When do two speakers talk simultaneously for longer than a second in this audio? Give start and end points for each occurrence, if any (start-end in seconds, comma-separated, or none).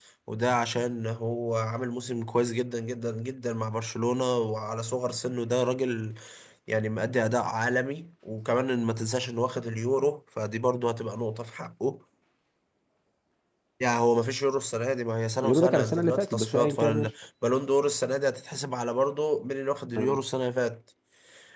15.4-17.1